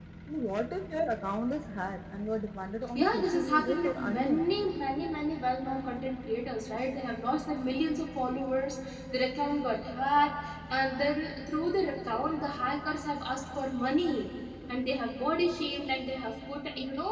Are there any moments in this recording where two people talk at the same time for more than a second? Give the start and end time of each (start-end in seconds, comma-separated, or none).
3.0-4.6